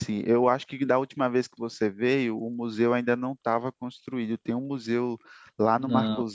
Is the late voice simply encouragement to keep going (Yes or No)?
Yes